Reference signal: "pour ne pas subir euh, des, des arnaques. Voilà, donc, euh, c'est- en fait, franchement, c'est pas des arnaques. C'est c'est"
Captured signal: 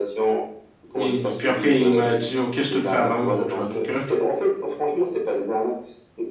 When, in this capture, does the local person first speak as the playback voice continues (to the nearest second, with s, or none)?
1 s